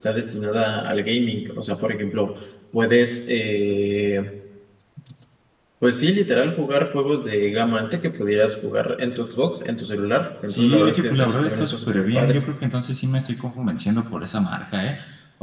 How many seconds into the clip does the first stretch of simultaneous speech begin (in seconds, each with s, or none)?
10.5 s